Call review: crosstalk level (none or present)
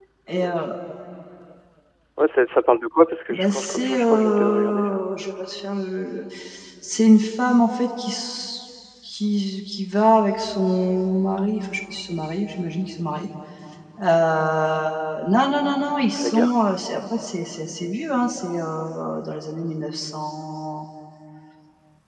present